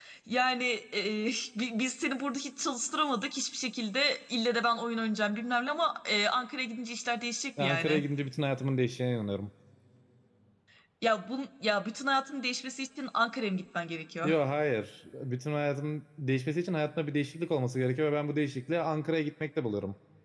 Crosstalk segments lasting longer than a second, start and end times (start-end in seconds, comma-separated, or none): none